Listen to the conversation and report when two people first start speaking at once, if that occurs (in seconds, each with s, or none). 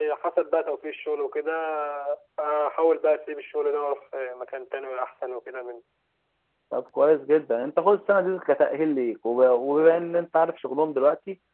none